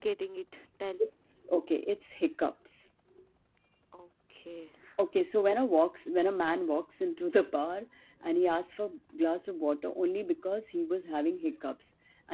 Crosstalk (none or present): none